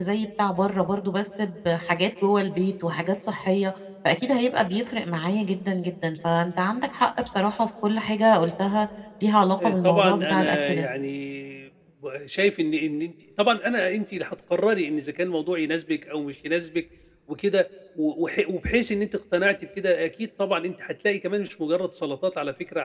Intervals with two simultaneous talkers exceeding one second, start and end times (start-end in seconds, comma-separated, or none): 9.6-10.9